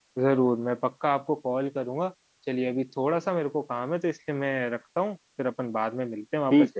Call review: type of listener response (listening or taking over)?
taking over